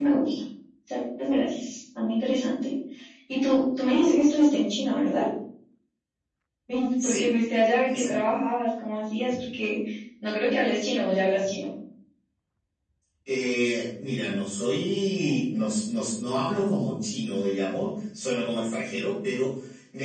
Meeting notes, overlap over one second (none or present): none